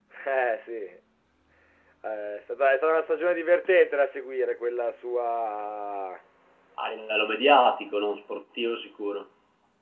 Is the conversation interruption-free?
Yes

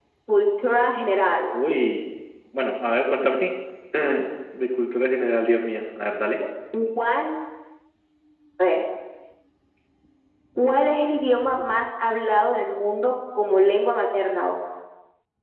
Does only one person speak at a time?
Yes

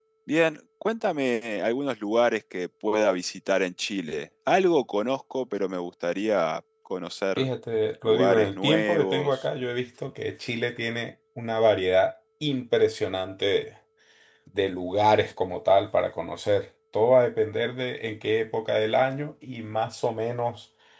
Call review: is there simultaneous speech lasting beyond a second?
Yes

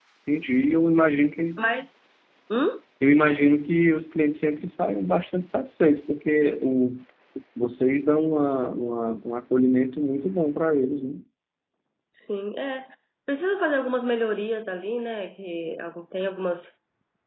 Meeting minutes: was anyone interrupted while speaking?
No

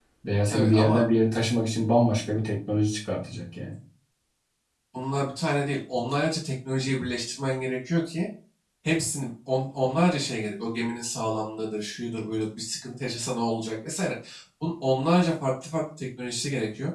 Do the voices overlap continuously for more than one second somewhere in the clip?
No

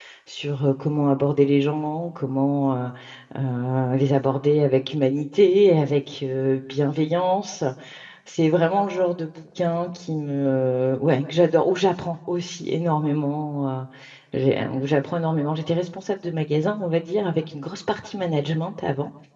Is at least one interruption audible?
No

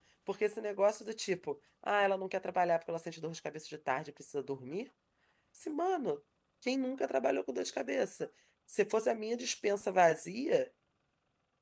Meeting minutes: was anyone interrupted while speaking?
No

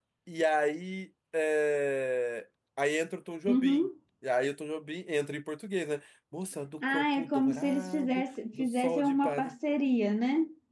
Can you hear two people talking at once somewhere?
Yes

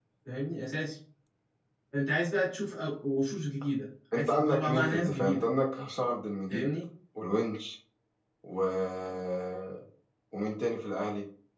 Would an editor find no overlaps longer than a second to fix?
No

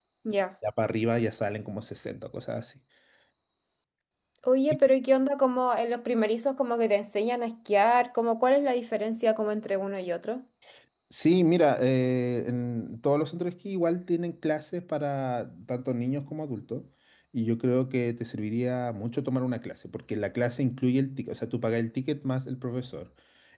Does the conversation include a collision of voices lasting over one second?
No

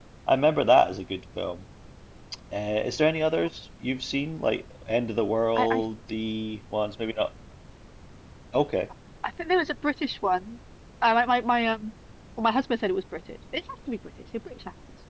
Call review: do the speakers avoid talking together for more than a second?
Yes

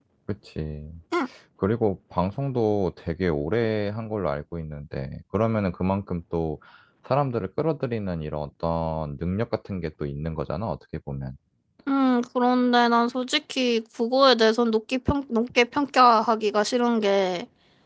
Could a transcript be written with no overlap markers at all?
Yes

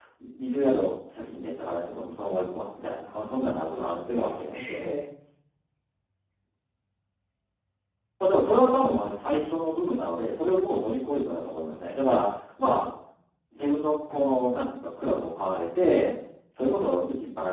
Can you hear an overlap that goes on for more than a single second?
Yes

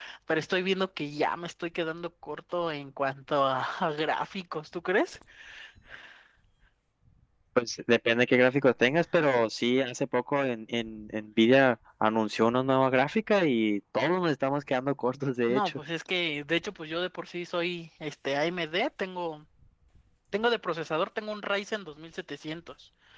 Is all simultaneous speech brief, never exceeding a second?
Yes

